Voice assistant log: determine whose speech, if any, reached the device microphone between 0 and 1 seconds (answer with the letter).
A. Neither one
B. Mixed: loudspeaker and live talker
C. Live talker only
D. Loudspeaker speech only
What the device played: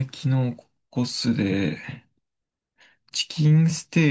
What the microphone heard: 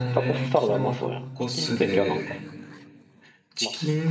B